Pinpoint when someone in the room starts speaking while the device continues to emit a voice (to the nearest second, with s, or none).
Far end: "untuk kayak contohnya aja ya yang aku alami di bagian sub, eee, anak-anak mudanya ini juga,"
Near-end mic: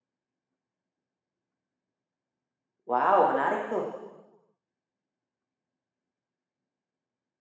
3 s